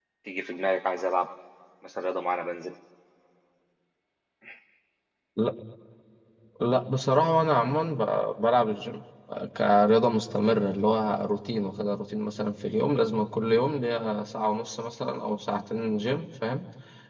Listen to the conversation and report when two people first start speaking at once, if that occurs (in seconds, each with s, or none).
none